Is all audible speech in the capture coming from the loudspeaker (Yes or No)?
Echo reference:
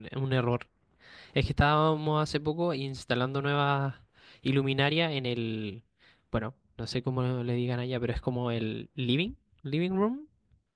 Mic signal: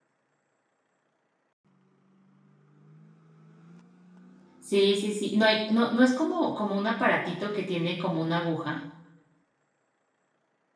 No